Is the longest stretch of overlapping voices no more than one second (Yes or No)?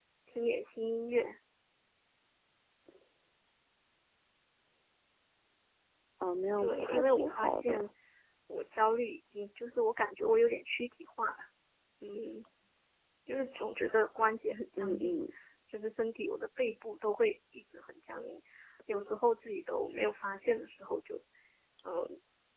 No